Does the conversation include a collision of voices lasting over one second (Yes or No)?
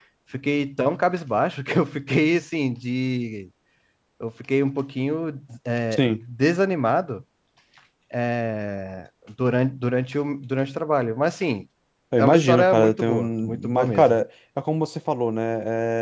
Yes